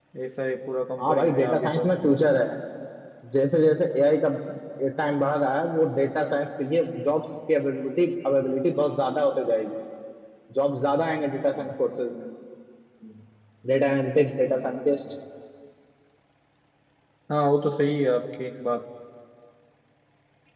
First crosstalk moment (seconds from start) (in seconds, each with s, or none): 1.0 s